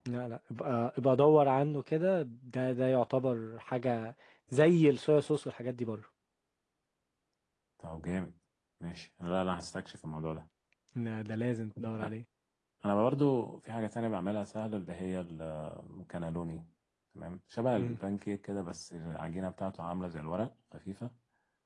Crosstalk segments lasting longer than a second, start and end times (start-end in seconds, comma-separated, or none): none